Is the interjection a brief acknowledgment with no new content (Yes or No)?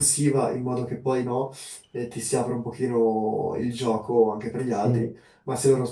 Yes